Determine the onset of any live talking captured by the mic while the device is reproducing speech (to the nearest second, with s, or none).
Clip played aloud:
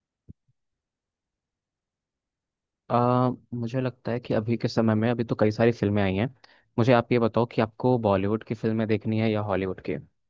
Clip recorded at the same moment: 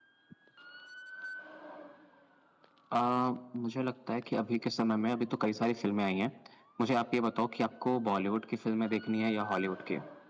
none